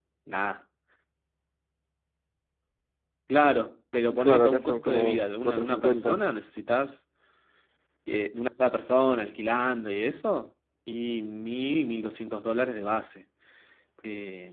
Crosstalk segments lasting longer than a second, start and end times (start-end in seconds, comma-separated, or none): 4.2-6.2